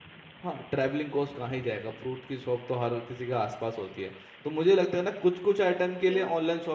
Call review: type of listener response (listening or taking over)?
listening